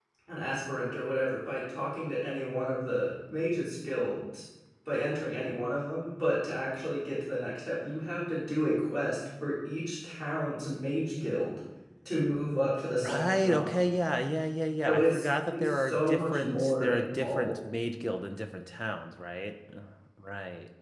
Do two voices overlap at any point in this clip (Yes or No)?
Yes